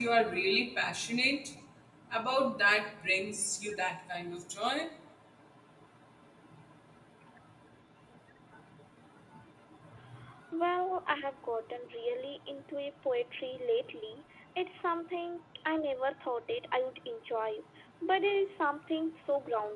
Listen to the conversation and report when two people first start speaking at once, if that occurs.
none

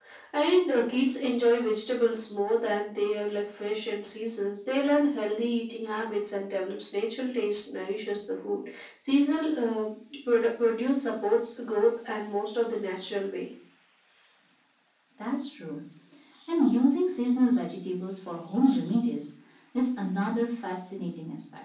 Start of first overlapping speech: none

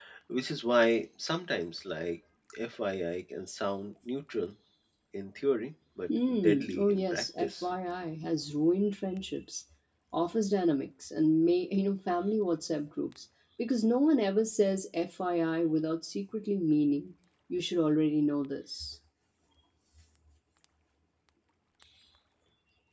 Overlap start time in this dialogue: 6.1 s

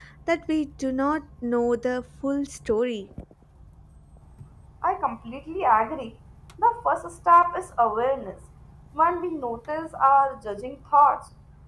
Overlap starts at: none

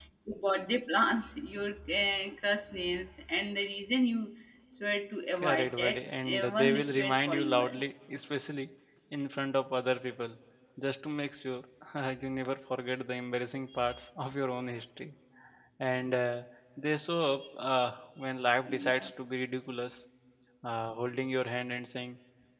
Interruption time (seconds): 5.3 s

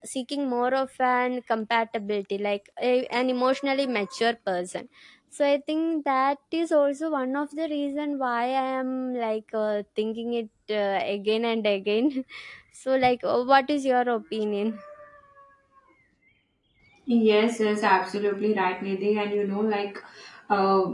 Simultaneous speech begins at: none

